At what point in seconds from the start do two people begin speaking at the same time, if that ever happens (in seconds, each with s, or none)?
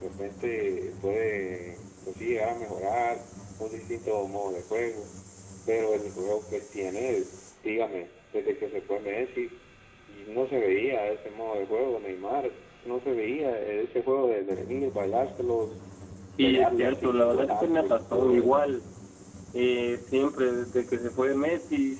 16.4 s